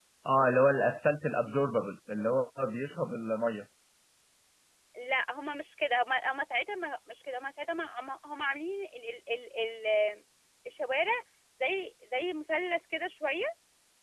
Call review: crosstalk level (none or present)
none